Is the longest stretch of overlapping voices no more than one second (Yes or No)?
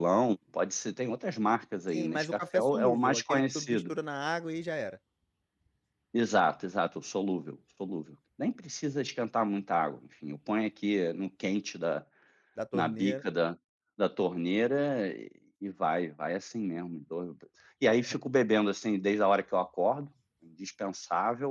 No